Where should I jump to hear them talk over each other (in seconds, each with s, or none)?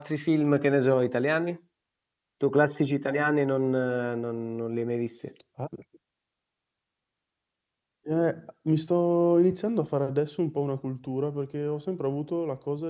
none